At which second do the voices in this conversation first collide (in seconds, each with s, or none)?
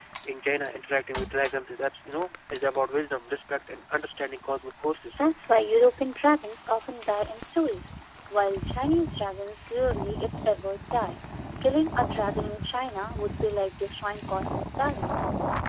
none